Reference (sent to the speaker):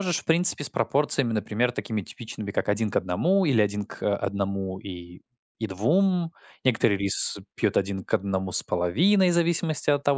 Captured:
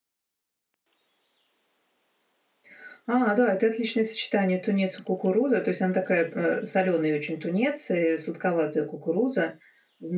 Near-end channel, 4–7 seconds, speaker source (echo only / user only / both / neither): user only